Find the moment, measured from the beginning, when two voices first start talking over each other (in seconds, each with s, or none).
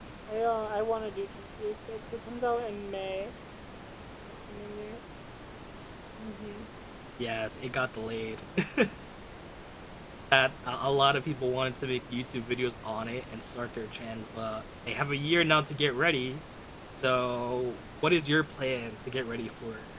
none